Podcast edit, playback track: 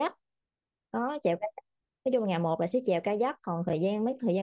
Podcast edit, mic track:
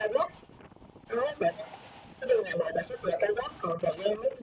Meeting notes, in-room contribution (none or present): none